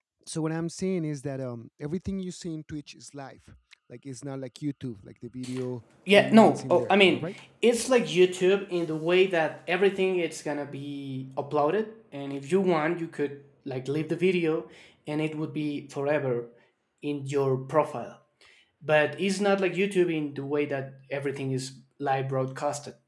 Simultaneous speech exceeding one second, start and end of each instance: 6.1-7.3

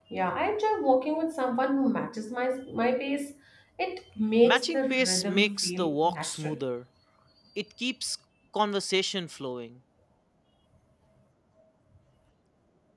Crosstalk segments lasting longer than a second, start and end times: 4.4-6.6

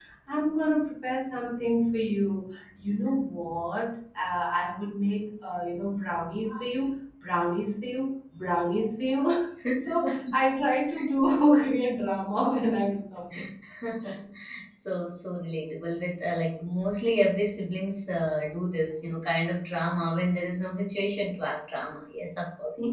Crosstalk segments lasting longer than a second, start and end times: none

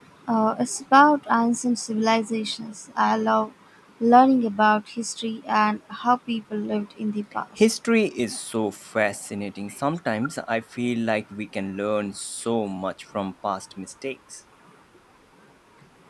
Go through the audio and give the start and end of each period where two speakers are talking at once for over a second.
none

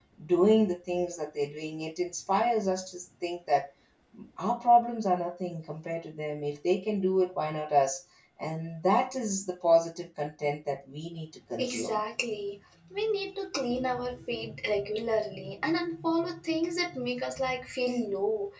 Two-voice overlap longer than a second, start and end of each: none

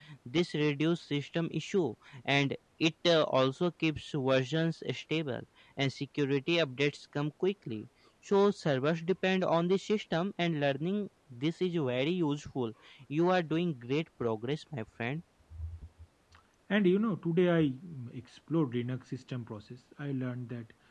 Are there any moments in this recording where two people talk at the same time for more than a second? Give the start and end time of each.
none

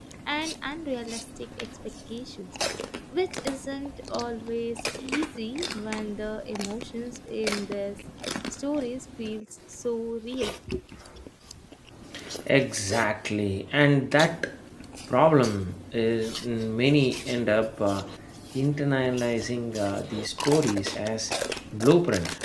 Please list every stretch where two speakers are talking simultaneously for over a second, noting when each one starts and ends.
none

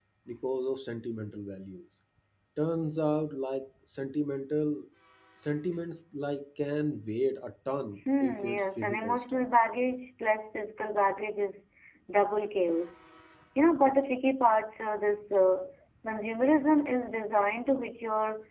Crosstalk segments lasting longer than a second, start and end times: 8.2-9.4

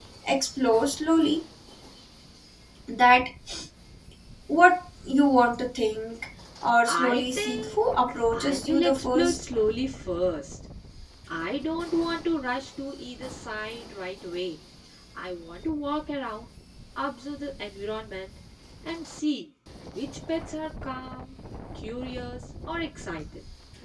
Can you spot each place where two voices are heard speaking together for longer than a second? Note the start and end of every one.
6.9-9.4

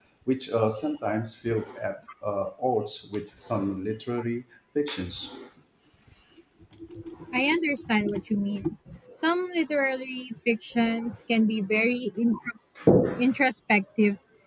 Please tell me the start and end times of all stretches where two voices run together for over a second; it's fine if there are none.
none

